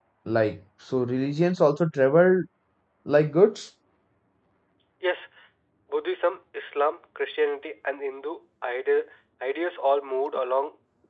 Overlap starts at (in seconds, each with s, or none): none